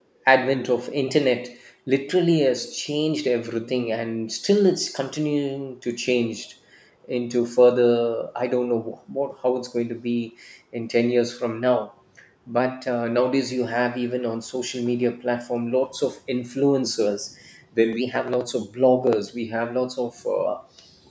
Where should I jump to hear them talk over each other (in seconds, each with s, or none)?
none